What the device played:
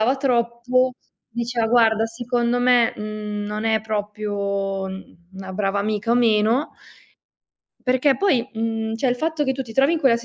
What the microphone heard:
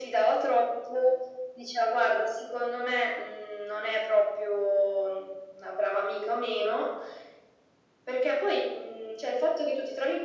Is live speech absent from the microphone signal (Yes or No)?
Yes